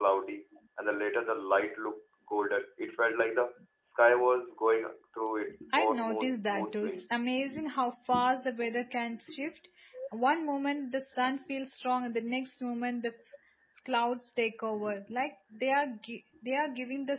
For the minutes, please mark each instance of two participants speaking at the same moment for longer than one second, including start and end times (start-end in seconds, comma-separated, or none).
5.8-7.1